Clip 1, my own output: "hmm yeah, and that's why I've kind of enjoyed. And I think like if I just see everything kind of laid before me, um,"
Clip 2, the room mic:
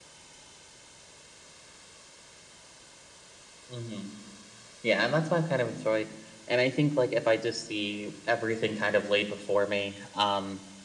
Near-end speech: none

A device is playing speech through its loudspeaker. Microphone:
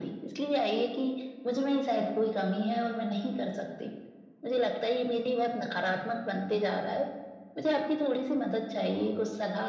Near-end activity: none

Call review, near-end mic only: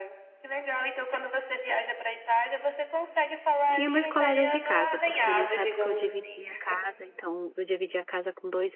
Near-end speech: present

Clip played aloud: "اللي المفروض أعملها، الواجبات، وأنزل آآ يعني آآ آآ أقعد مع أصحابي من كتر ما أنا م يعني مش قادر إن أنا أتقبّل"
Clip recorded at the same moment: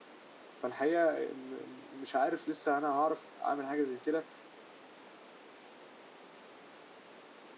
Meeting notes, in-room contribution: present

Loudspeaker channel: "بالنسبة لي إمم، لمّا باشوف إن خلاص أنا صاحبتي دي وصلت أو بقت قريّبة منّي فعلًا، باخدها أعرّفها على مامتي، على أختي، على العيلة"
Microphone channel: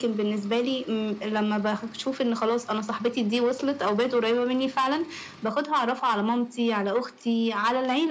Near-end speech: none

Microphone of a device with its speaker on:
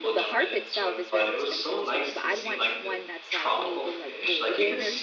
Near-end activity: present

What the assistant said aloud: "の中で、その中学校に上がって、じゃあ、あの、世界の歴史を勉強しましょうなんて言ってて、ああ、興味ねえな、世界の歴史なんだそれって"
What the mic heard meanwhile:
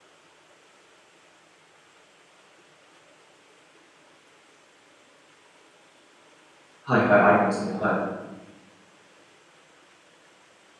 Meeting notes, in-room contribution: present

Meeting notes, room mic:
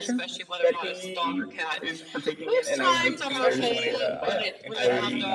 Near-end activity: present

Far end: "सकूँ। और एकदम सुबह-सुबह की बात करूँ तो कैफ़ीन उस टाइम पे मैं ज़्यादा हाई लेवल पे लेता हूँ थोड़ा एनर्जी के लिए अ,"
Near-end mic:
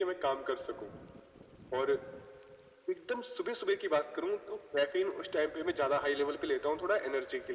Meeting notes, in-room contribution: none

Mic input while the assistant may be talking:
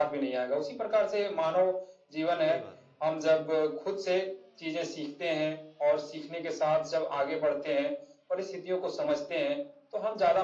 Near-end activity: present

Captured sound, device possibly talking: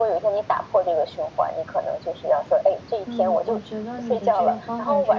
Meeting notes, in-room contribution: present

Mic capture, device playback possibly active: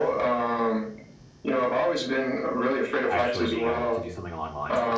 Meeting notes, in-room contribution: present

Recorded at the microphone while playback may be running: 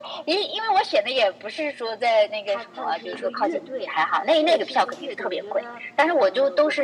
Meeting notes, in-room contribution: present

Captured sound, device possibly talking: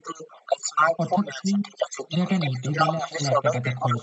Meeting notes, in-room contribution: present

